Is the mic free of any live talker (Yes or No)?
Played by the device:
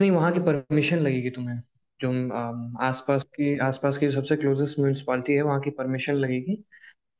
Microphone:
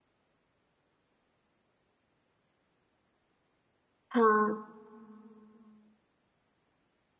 No